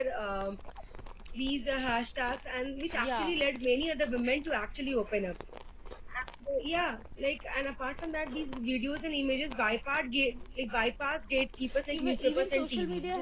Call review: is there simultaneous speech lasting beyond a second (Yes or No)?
Yes